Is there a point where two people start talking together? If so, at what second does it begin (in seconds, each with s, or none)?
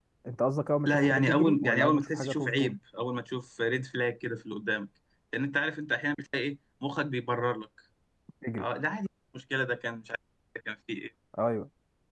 0.9 s